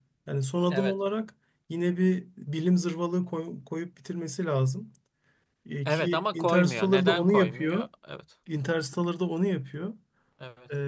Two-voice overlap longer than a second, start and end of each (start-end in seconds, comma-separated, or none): 5.8-7.9